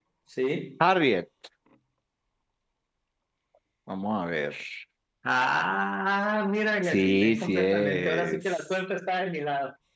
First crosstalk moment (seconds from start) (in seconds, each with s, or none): 6.8 s